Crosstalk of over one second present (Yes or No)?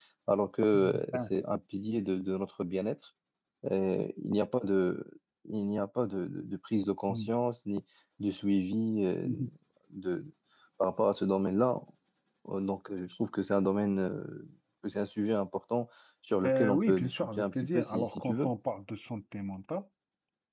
Yes